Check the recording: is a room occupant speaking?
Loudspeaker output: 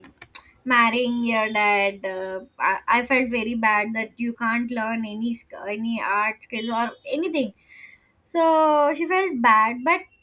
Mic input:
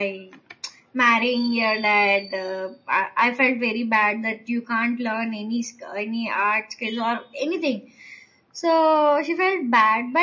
No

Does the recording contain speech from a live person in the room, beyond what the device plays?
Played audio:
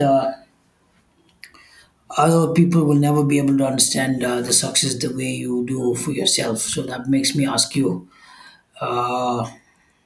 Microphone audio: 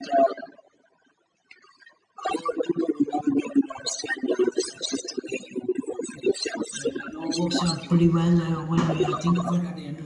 Yes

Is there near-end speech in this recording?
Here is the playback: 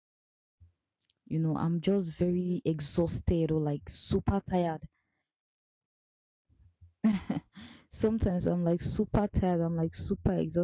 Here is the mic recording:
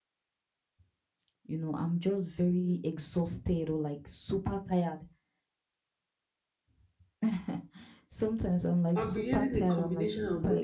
Yes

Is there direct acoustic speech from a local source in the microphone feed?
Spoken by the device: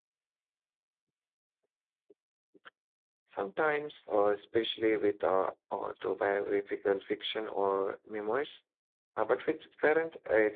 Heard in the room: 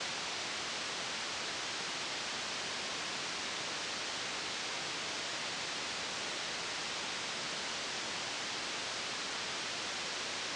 No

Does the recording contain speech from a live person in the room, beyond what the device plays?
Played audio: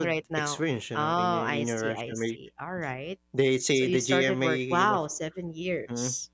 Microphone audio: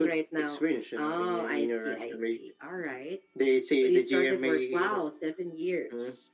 No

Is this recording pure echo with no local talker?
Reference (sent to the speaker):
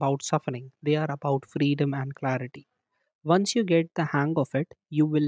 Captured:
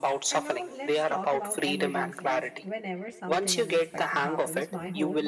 No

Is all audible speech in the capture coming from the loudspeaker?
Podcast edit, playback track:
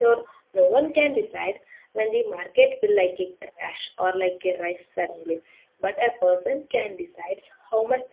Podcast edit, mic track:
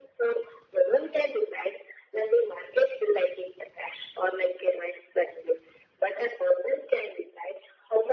Yes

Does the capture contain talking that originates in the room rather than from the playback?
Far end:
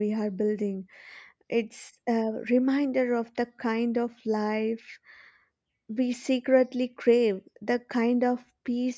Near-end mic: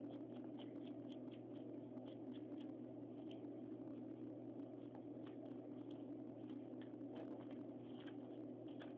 No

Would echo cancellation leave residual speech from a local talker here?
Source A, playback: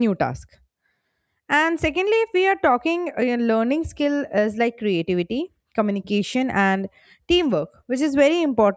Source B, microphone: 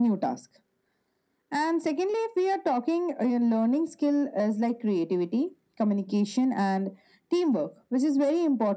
No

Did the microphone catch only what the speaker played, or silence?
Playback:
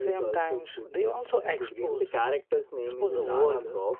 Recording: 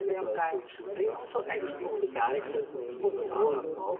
No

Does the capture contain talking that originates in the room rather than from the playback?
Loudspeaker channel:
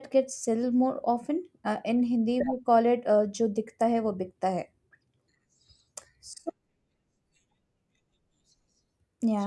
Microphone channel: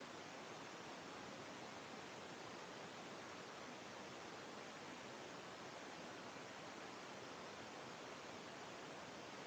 No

